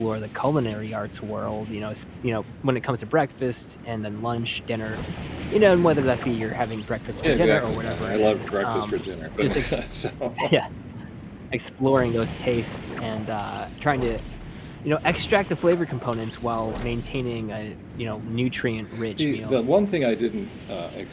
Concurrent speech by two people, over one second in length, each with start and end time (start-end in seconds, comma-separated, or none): 7.2-9.0